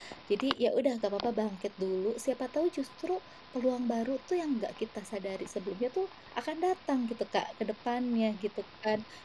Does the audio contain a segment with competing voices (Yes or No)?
No